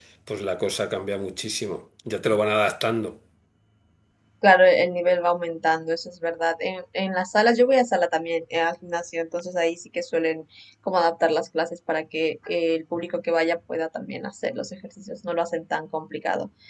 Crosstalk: none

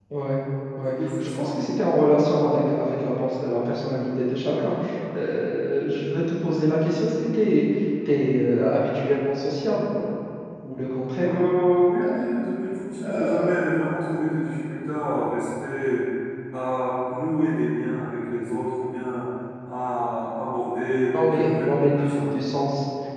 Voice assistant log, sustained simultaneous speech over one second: present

